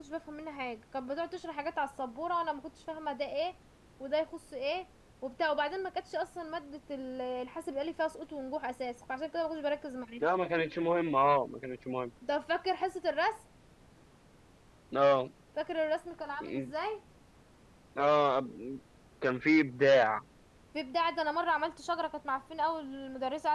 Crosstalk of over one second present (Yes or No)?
No